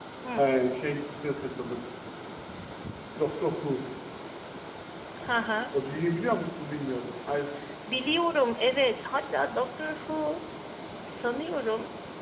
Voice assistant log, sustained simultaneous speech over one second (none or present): none